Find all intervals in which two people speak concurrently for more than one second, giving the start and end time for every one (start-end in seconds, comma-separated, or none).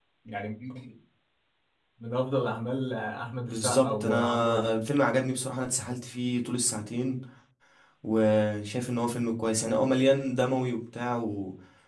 3.5-4.7